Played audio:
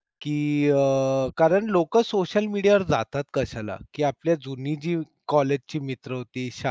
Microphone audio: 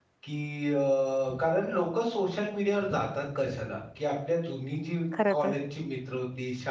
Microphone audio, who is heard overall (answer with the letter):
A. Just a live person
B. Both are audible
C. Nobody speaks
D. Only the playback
B